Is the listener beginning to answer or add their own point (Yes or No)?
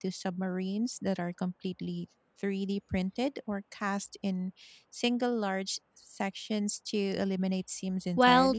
Yes